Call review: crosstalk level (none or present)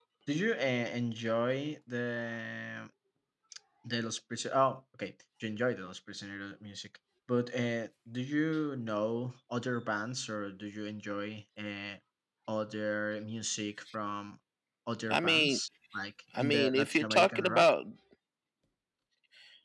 present